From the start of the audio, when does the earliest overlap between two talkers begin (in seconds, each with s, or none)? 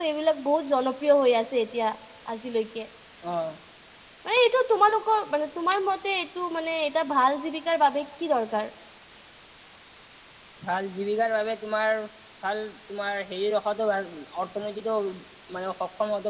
none